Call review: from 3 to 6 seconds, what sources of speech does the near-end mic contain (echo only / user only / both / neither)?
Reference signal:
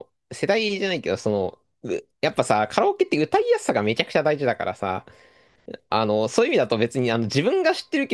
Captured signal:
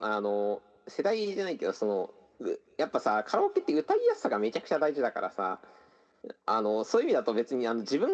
echo only